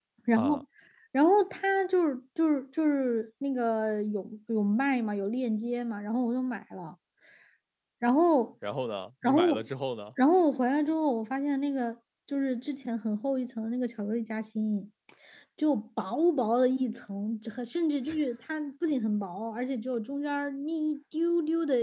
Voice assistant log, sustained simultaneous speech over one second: none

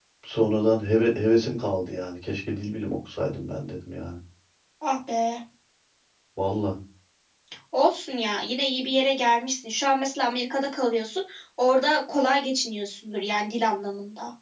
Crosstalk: none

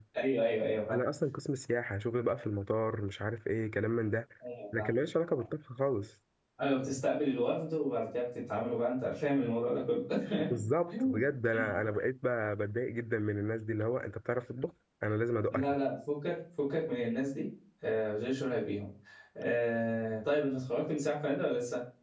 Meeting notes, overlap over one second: none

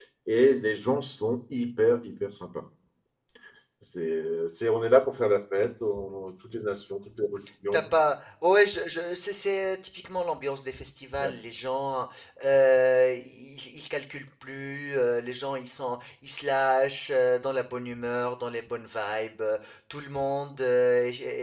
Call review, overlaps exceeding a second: none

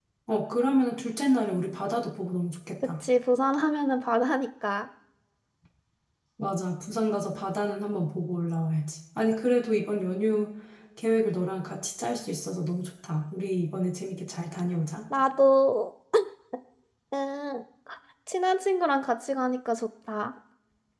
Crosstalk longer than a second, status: none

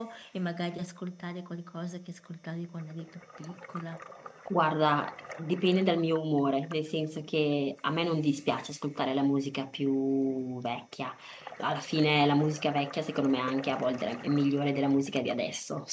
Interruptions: none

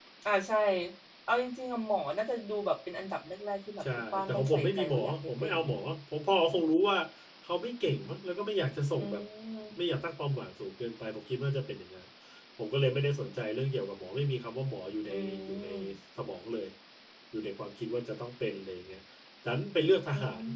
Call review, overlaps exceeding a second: present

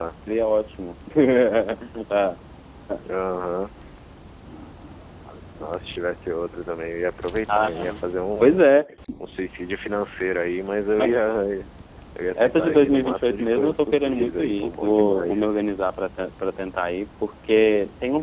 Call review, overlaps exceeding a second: present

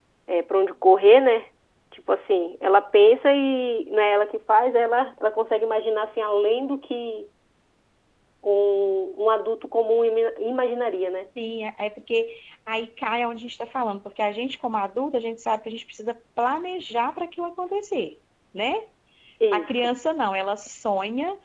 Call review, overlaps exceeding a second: none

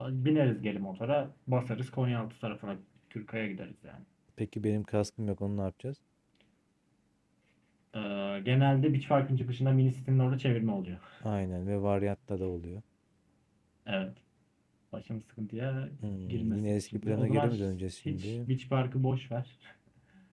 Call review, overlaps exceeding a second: present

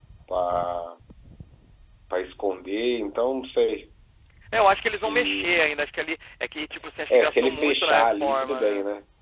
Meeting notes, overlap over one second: present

